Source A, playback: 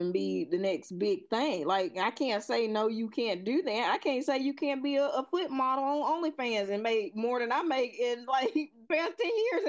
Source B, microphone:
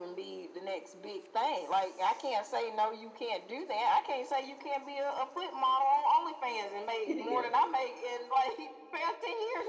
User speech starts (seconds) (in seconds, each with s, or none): 7.1 s